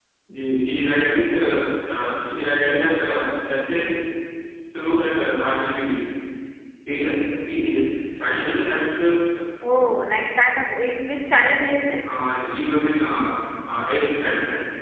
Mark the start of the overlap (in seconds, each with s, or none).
none